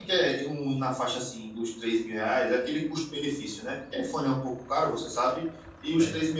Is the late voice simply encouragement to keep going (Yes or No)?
Yes